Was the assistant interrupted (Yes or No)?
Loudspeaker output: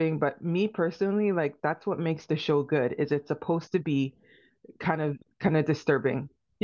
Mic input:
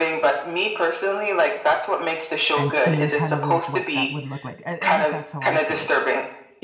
Yes